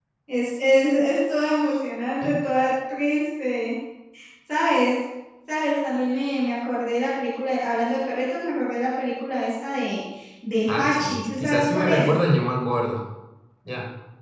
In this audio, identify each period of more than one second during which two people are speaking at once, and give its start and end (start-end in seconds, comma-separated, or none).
10.7-12.1